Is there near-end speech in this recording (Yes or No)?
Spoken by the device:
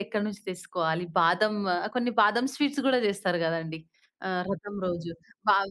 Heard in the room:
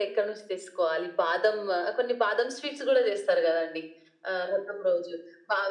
No